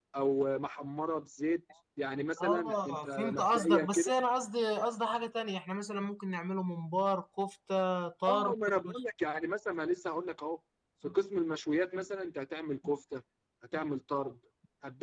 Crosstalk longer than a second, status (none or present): present